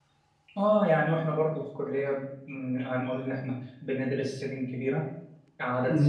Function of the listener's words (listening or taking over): listening